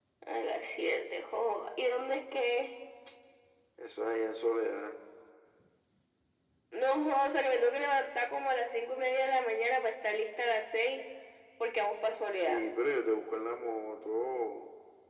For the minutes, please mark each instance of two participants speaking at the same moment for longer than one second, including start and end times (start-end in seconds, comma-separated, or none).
none